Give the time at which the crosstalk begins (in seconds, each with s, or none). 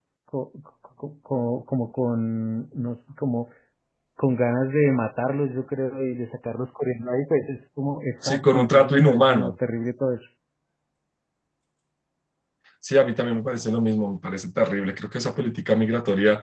8.2 s